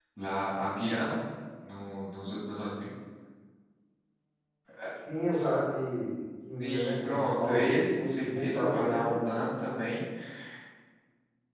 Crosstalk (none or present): present